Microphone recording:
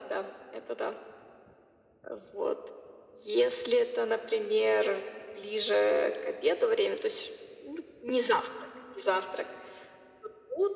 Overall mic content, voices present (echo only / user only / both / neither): echo only